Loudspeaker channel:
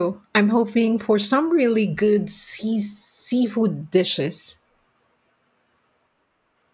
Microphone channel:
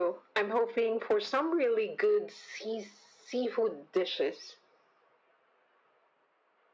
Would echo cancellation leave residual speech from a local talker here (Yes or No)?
No